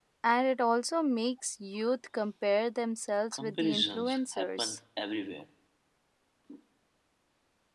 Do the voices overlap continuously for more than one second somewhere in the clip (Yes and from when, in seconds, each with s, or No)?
Yes, from 3.3 s